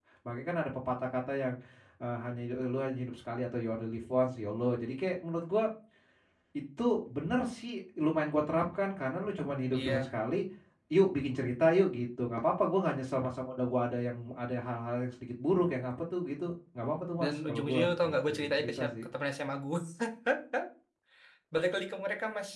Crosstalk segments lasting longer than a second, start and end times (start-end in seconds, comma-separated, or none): 17.2-19.0